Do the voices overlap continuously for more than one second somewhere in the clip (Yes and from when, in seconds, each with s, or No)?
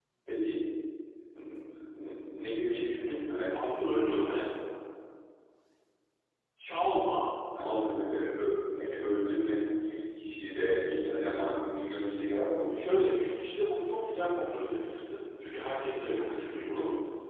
No